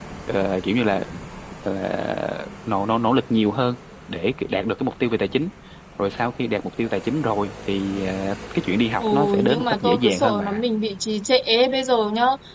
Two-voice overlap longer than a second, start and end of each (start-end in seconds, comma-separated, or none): 9.0-10.6